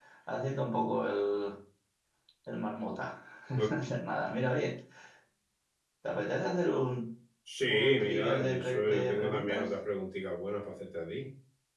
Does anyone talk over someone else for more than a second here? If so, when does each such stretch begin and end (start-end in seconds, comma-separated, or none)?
7.7-9.7